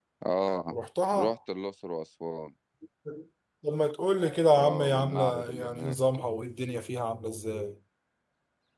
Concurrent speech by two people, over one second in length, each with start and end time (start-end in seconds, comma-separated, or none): 4.5-6.0